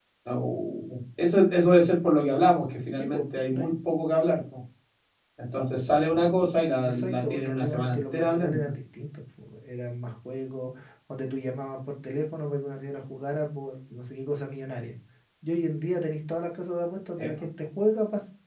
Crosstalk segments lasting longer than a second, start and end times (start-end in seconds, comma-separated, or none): 6.8-8.7